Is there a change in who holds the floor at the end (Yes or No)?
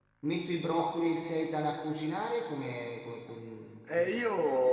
Yes